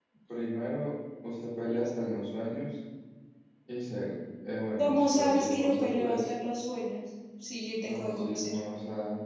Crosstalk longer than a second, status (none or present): present